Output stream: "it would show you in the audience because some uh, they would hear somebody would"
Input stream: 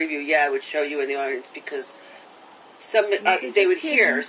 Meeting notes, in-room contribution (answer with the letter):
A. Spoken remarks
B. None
A